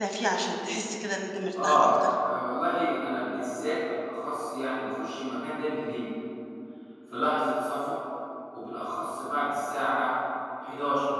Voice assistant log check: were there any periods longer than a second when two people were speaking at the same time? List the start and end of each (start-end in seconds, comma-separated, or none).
none